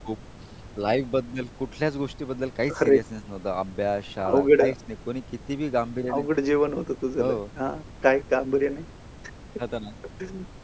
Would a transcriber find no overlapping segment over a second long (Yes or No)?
Yes